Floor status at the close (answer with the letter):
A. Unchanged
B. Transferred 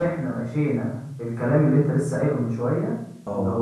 A